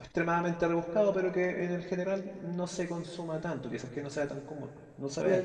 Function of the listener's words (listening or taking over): taking over